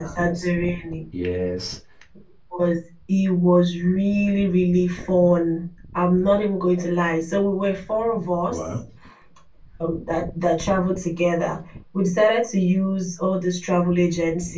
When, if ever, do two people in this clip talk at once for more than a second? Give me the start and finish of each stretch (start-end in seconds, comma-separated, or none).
none